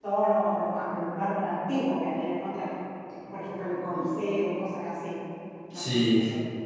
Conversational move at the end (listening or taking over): taking over